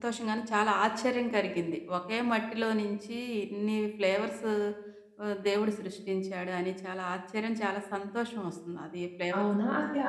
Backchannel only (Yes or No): No